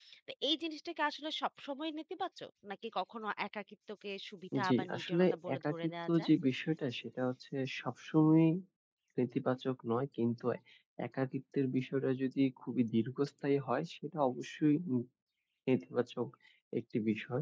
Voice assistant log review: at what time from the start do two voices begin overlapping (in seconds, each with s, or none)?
4.5 s